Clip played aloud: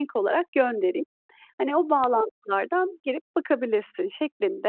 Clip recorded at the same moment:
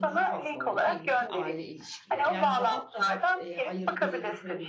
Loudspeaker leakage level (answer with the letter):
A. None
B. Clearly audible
B